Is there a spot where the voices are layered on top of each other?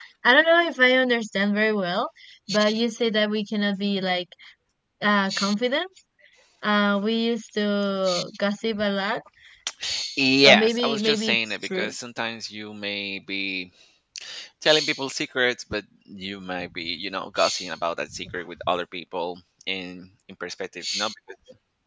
Yes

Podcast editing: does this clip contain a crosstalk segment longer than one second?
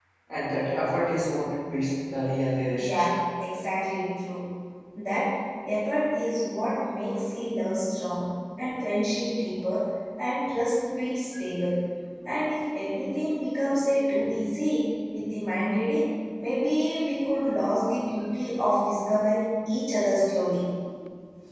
No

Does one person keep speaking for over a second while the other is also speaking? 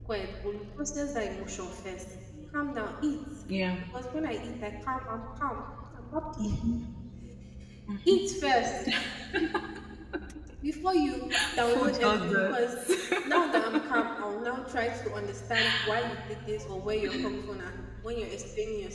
Yes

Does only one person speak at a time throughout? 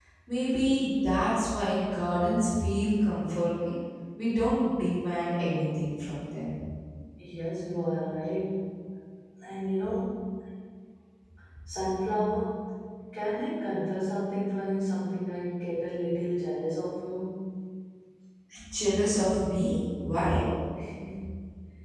Yes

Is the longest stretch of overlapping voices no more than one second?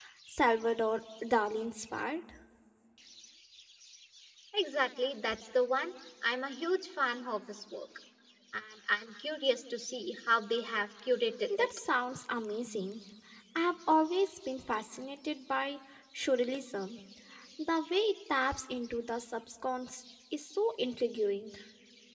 Yes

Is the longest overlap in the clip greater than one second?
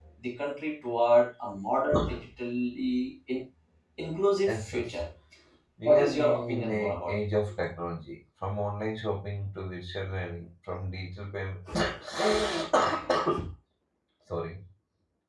Yes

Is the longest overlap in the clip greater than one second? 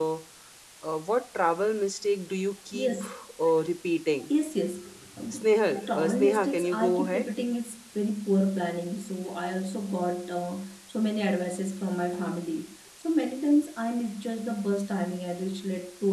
Yes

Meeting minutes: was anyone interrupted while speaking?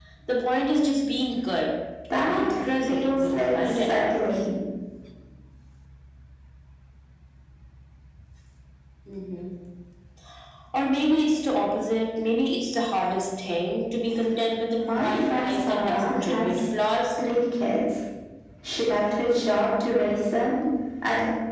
Yes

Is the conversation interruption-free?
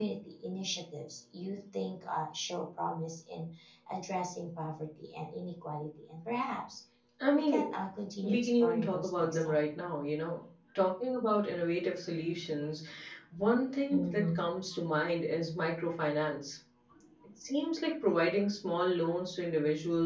No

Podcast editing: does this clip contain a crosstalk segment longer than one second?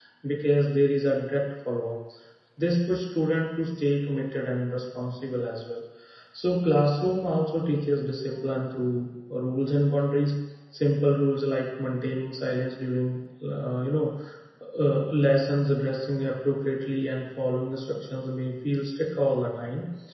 No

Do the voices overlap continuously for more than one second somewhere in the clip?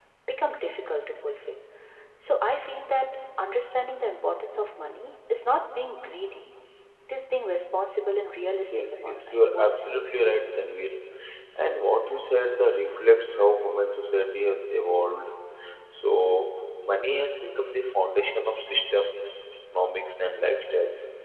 Yes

